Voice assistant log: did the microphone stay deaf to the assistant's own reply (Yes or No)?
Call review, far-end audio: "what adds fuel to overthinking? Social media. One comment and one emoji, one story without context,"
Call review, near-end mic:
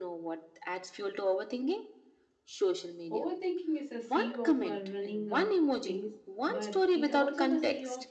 No